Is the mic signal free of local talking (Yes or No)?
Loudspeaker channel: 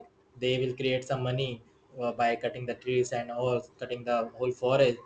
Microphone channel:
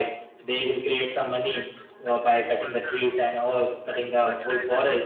No